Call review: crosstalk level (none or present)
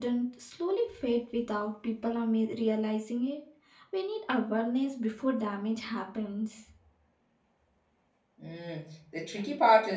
none